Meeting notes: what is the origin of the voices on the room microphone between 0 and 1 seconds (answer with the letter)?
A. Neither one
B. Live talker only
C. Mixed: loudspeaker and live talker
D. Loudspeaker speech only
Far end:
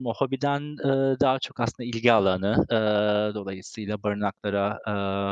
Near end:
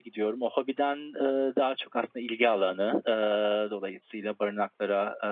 D